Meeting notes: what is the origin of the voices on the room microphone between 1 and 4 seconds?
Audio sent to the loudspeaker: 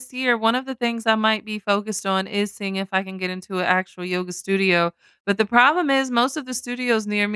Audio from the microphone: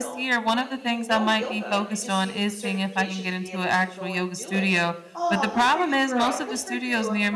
both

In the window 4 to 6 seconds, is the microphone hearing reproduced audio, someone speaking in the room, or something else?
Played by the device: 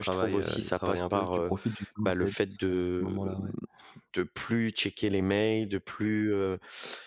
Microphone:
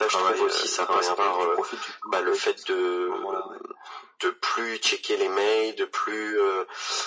echo only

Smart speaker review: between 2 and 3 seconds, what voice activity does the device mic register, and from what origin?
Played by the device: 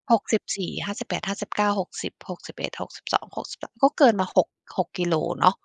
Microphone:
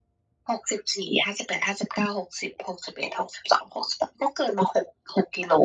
echo only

